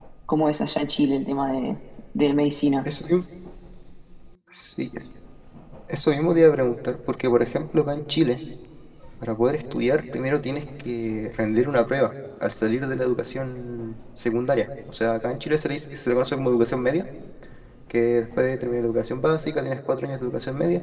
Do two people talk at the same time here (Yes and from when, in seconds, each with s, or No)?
No